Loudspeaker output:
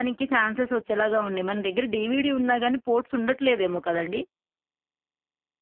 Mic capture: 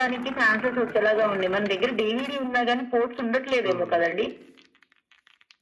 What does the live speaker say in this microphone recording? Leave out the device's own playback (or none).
హ్మ్, హ్మ్.